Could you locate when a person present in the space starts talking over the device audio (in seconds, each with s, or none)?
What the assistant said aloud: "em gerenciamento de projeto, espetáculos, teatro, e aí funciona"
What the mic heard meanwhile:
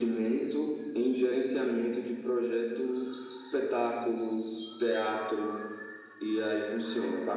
none